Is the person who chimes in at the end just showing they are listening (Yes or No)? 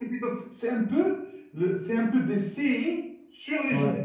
No